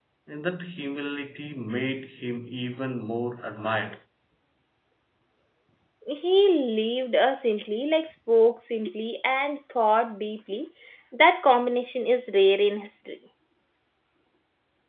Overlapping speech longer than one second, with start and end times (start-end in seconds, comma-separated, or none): none